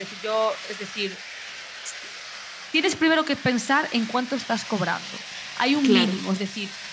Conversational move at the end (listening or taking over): listening